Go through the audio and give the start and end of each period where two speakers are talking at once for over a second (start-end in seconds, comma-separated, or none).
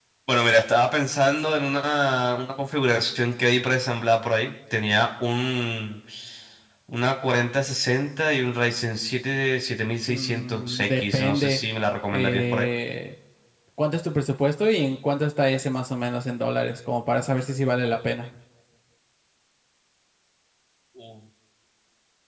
10.1-11.6